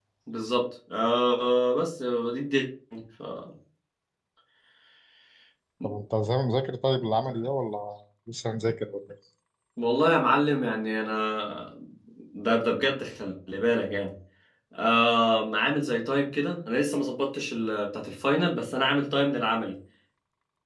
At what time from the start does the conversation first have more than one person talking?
none

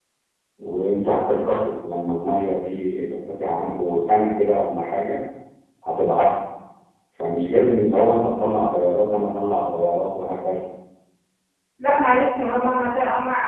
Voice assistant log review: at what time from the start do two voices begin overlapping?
none

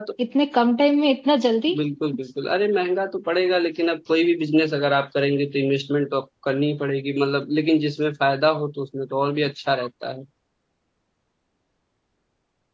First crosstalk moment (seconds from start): none

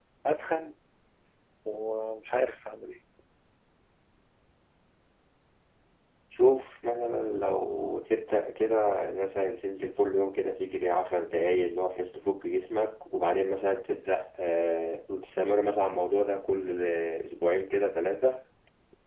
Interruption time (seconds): none

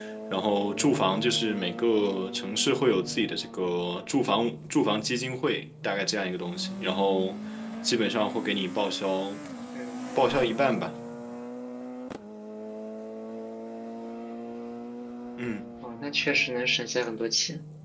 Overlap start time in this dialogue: none

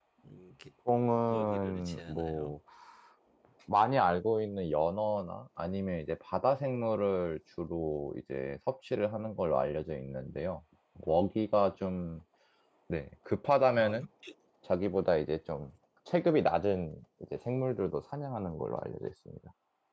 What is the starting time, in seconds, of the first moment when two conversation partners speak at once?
1.3 s

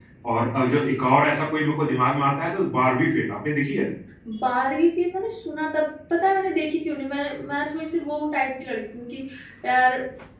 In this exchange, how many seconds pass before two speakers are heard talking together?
none

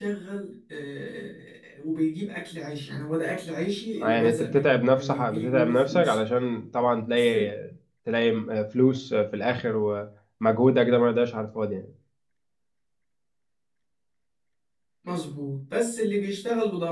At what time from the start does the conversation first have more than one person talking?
4.0 s

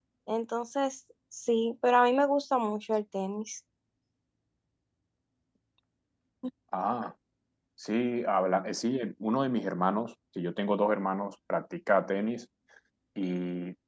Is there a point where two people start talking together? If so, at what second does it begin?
none

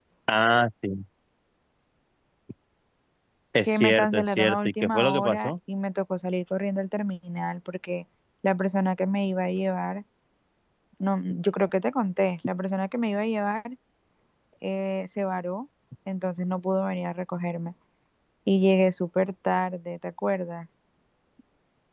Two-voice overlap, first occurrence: 3.7 s

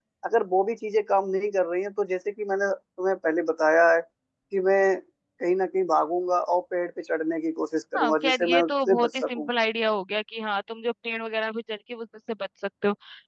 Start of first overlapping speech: 7.9 s

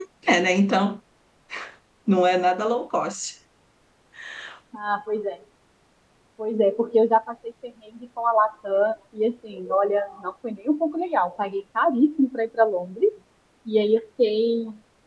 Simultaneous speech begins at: none

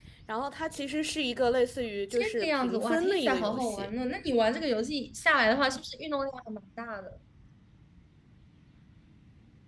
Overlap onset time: 2.1 s

